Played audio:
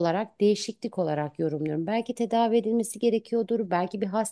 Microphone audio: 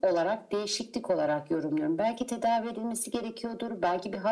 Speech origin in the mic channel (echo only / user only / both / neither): echo only